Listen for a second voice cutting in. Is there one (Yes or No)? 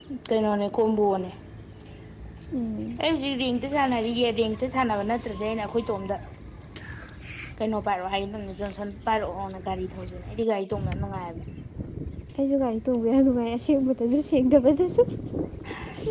No